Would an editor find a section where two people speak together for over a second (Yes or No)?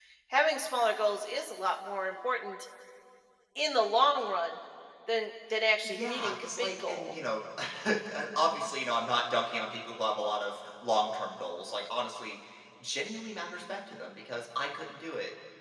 Yes